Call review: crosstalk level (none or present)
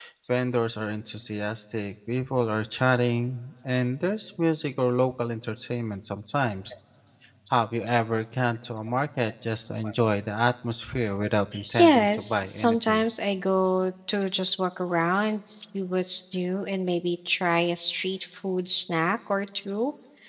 present